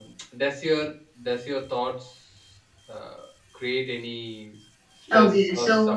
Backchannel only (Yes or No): No